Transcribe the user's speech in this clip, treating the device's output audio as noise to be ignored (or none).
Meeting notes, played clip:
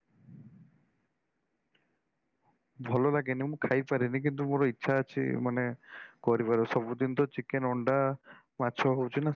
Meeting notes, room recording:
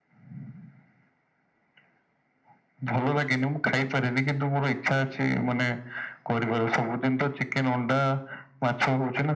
none